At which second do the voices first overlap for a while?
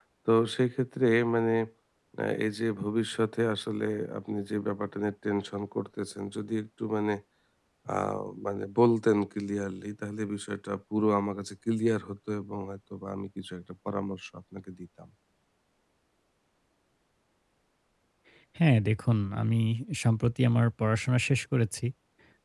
none

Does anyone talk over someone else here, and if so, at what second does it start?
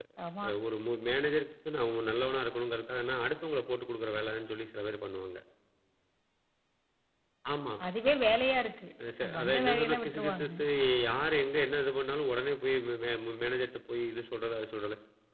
9.0 s

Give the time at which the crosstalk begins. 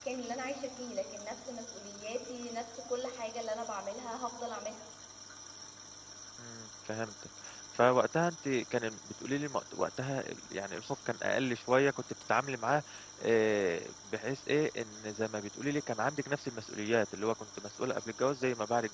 none

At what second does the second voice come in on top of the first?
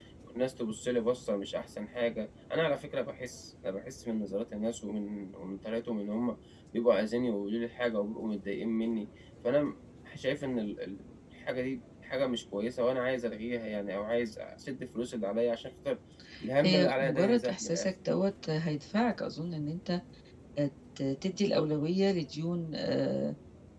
16.6 s

